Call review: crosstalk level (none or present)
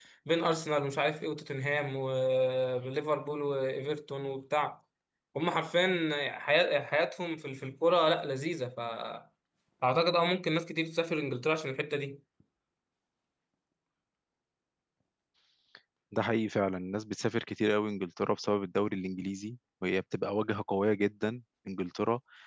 none